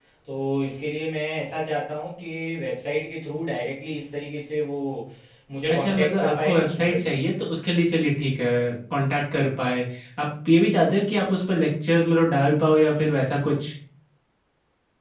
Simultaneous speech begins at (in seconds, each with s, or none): 5.7 s